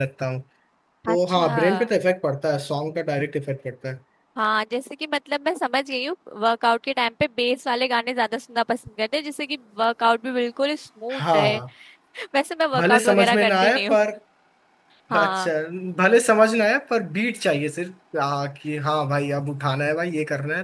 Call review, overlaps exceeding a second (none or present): present